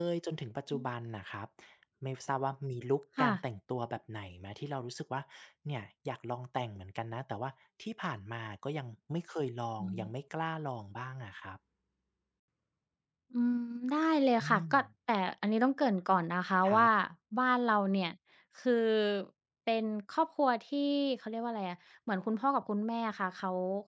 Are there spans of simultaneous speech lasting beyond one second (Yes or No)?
No